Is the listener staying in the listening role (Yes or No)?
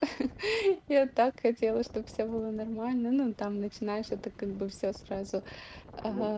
No